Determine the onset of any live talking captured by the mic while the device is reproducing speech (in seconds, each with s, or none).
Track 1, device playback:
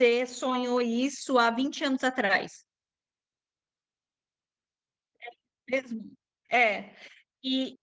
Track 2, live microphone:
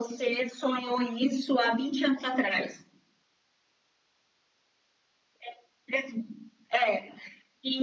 none